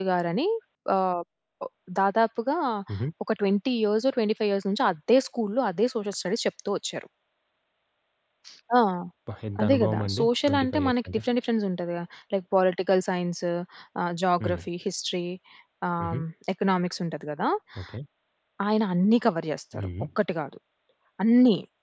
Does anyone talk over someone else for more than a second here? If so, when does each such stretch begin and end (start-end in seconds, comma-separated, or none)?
9.6-11.2